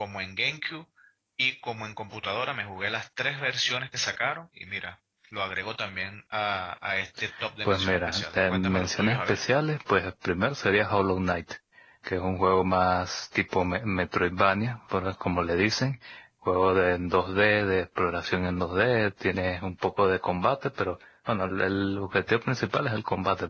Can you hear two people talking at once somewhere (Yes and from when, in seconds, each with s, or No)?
Yes, from 7.7 s